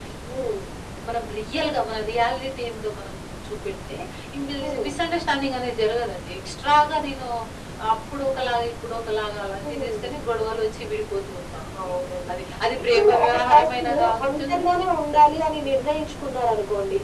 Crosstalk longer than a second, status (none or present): present